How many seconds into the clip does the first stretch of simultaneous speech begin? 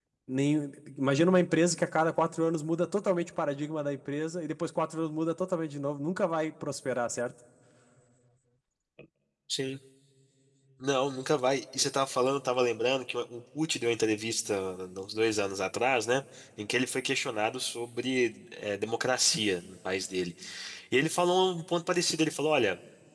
none

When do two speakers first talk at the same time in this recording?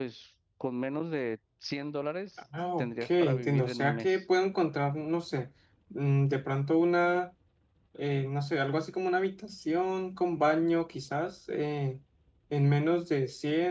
2.8 s

